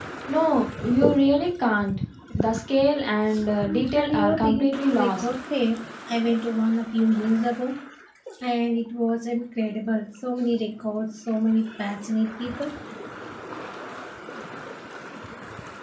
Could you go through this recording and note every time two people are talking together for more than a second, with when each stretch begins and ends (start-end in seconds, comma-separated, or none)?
3.7-5.2